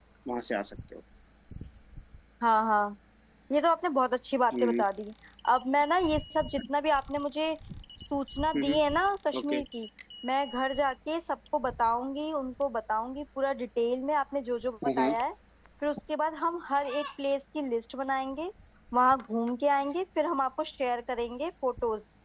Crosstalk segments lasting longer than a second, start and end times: none

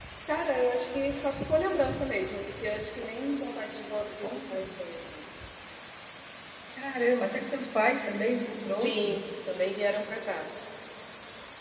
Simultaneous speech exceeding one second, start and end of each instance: none

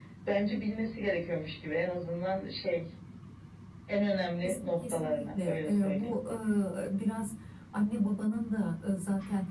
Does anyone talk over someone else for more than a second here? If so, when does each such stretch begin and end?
4.4-6.1

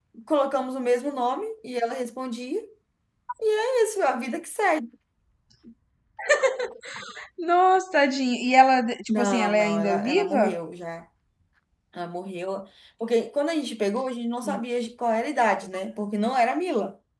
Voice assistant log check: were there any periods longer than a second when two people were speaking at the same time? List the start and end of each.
9.1-10.5

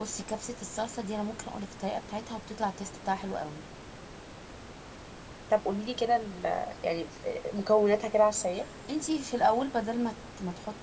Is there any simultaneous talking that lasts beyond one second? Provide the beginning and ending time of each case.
none

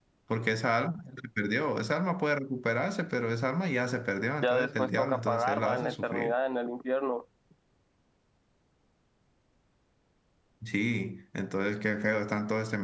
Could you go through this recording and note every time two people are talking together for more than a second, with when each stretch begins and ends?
4.4-6.3

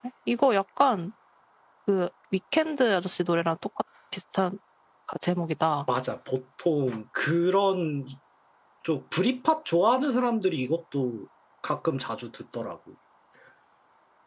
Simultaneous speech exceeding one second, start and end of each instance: none

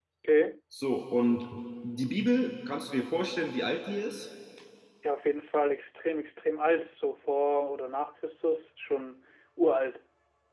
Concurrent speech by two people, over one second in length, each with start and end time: none

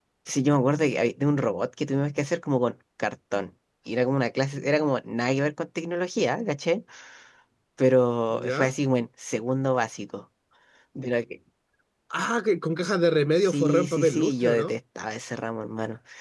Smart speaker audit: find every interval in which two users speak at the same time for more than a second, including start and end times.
13.4-14.7

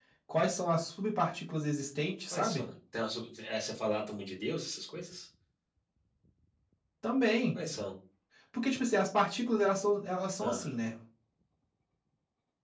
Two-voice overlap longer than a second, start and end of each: none

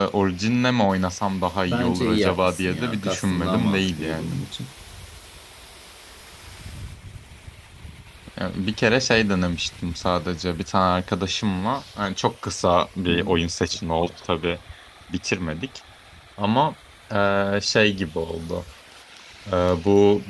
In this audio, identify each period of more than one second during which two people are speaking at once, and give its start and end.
1.7-4.3

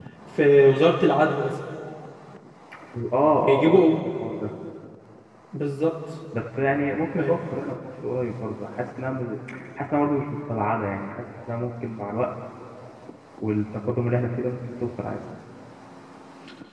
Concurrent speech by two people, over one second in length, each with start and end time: none

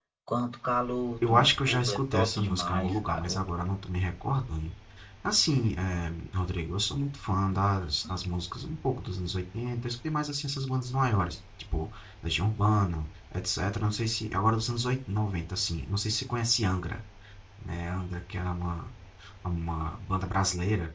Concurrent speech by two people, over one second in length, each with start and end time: 1.3-3.4

